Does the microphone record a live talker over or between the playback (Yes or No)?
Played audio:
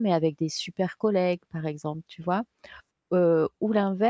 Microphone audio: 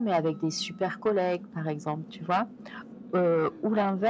No